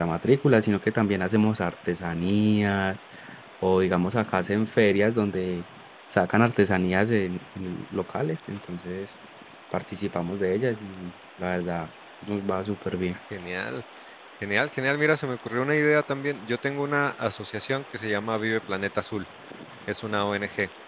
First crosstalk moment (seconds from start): none

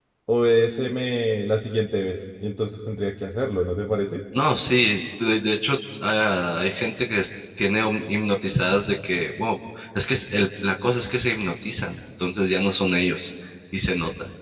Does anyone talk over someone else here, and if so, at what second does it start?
none

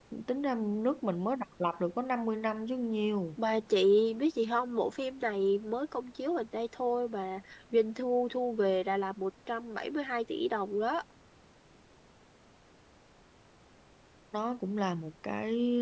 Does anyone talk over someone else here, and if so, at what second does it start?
none

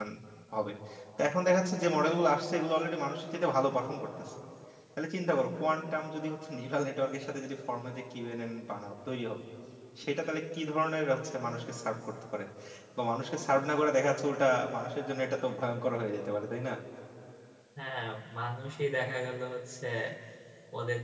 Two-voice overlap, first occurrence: none

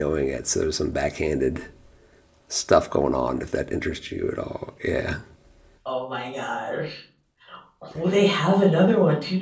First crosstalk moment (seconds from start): none

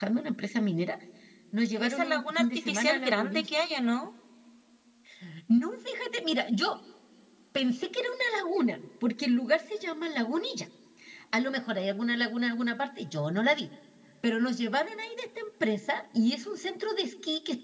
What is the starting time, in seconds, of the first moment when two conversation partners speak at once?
2 s

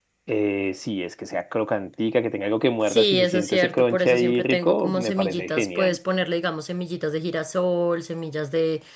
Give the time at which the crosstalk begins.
3 s

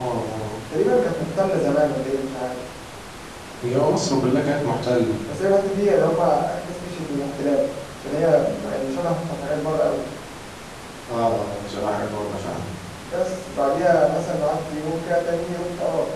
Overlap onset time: none

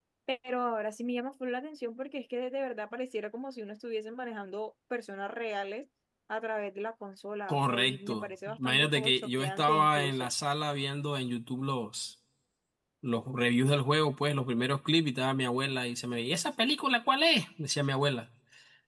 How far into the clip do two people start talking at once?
7 s

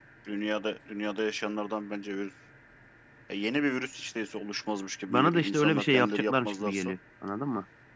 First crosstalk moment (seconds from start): 5 s

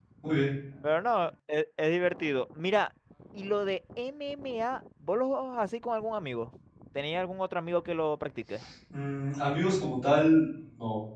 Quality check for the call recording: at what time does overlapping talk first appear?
none

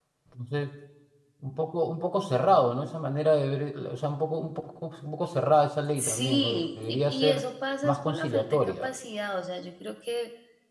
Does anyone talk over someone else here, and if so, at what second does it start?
6 s

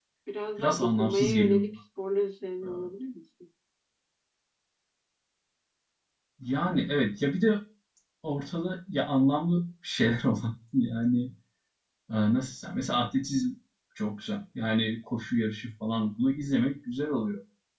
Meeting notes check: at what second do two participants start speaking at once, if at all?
1 s

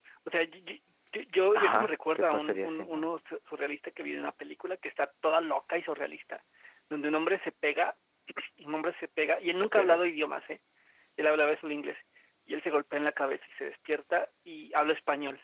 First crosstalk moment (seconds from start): 2 s

